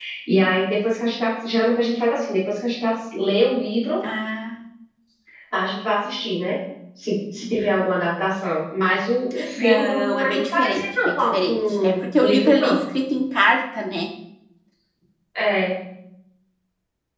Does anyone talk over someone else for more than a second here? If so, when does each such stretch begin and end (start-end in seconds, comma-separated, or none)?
9.6-12.8